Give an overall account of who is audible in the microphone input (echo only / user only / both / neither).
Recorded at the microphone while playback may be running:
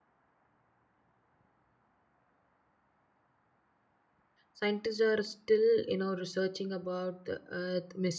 user only